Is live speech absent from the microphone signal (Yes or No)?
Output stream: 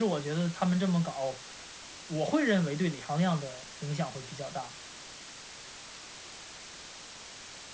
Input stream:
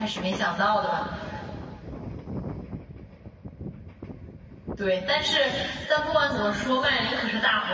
No